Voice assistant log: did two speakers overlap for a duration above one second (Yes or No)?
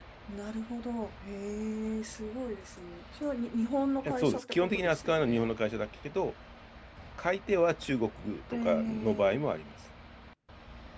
Yes